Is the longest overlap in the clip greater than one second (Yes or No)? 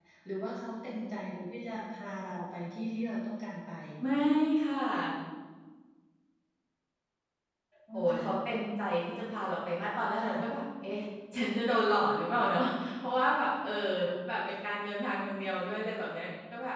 No